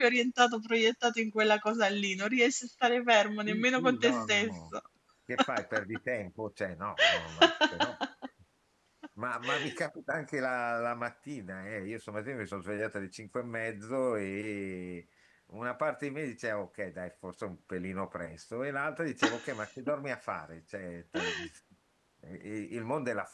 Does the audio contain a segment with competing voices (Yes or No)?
Yes